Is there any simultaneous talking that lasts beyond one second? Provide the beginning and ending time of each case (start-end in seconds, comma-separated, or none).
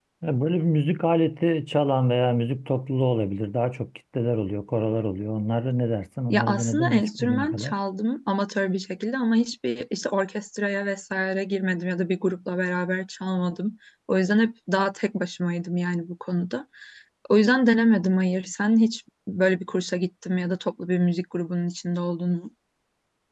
6.3-7.7